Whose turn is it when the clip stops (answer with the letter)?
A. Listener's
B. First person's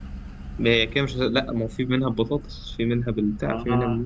A